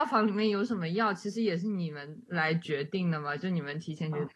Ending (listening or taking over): listening